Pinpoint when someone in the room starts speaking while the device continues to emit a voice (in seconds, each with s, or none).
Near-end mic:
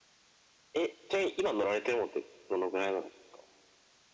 none